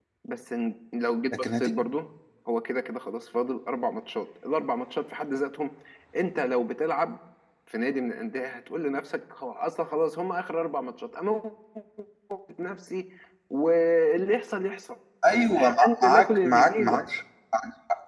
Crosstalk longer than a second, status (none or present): present